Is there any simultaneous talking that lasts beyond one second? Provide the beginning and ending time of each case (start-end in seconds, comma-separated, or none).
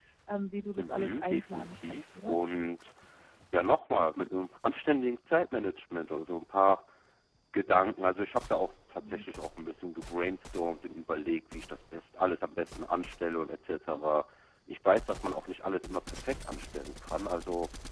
0.8-2.4